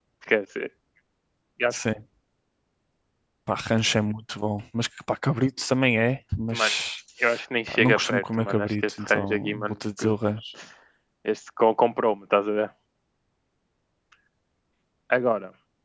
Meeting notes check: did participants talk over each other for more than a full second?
Yes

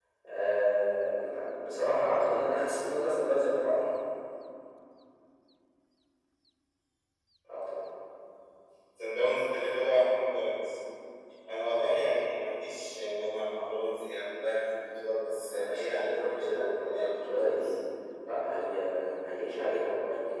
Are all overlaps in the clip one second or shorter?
No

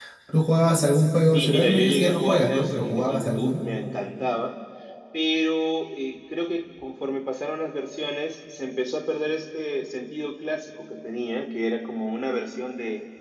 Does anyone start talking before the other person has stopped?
Yes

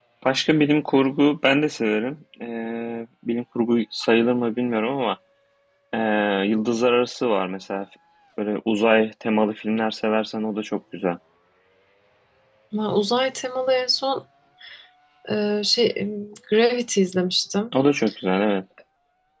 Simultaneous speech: No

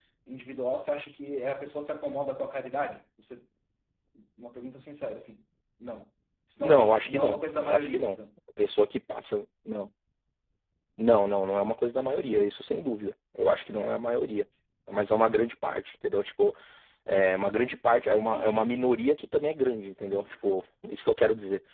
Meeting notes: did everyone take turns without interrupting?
No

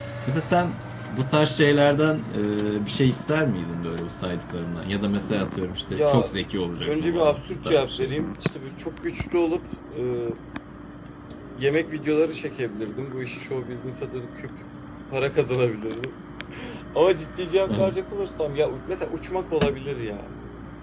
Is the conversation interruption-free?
No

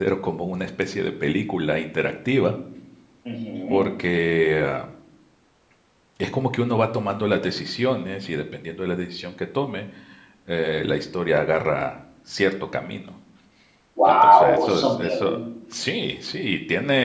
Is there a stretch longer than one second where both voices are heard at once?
Yes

